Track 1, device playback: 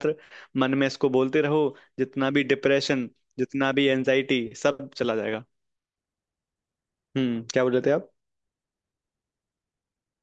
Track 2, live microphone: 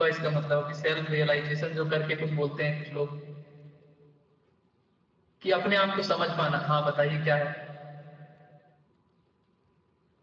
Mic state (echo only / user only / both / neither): user only